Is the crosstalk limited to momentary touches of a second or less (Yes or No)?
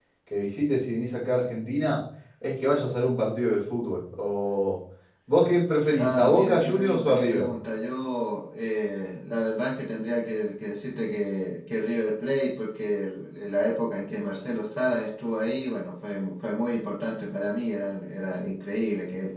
No